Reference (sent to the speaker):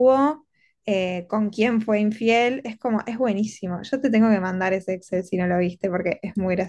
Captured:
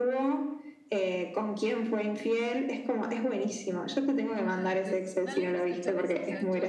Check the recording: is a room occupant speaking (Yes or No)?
Yes